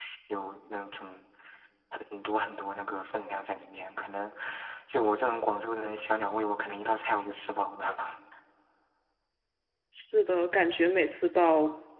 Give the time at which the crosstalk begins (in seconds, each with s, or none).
none